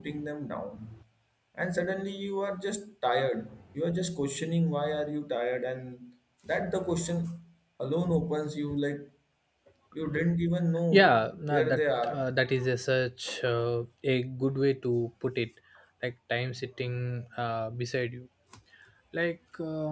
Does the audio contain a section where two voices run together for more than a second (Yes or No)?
Yes